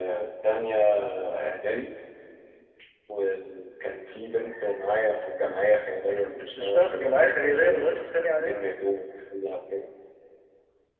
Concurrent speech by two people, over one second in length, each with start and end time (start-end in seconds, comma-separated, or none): 6.1-7.8